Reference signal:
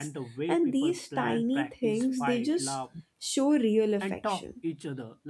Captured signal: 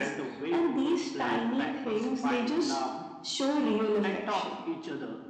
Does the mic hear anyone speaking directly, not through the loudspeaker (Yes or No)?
No